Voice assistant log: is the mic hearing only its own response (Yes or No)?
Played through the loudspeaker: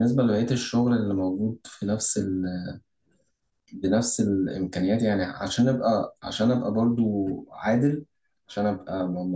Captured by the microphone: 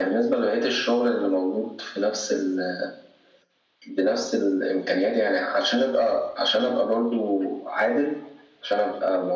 Yes